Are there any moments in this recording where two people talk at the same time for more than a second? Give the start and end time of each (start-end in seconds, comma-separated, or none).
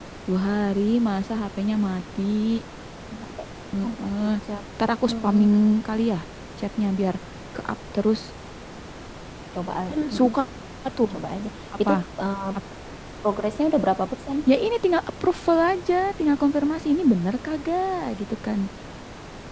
none